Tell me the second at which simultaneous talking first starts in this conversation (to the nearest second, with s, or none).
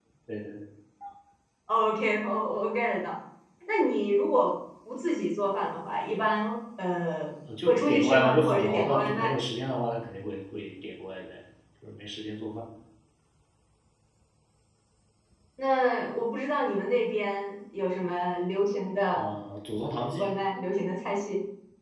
7 s